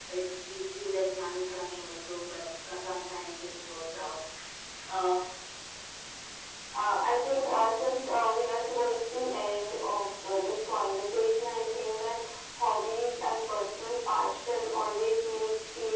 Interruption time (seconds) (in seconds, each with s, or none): none